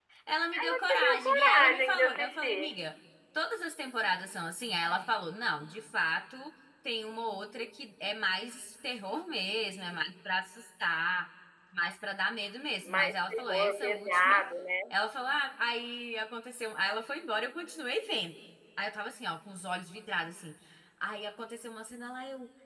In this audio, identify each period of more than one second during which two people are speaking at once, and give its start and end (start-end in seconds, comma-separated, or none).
0.6-2.8, 12.8-14.4